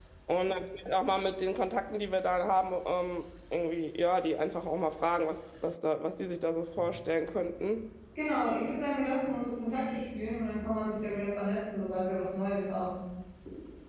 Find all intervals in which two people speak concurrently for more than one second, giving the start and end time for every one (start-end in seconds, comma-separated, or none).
none